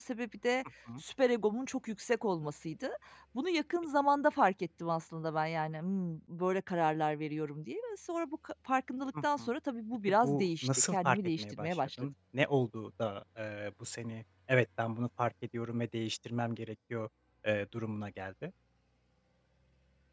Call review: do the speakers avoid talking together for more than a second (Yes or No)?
No